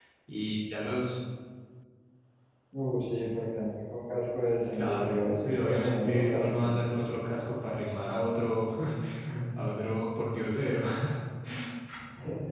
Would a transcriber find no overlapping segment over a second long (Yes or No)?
No